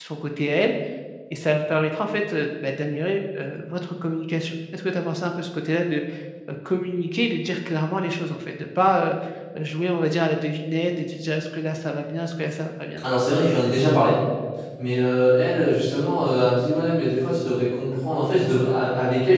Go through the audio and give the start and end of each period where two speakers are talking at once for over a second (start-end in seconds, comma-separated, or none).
none